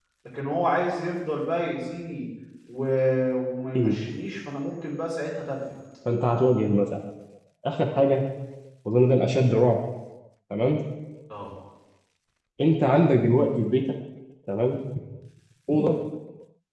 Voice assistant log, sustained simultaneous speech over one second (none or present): none